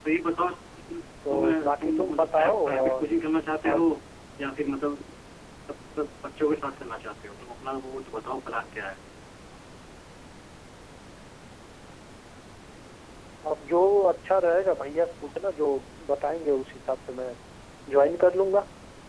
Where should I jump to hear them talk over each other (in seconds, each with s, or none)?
1.3 s